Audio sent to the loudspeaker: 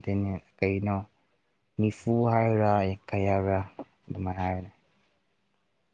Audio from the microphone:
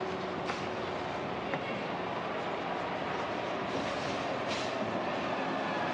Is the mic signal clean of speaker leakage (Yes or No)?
Yes